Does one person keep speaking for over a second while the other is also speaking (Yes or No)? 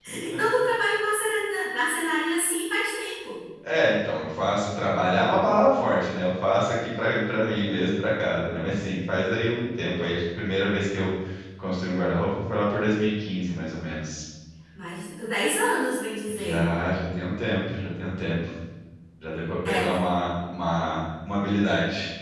No